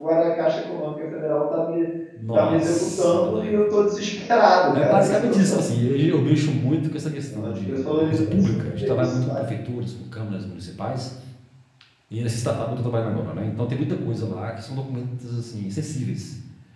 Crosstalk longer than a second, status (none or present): present